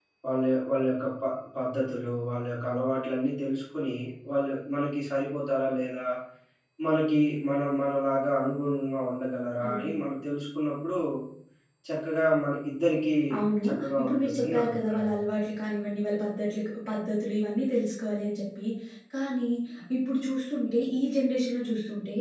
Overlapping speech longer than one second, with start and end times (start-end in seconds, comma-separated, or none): 13.7-15.1